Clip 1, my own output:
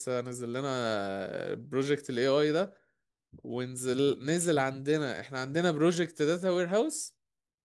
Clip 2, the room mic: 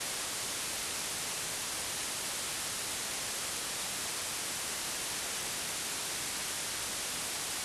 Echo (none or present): none